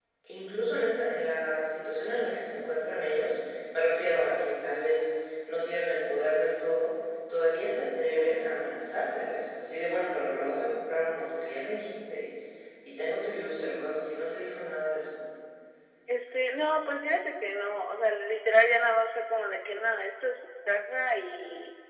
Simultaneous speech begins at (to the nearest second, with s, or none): none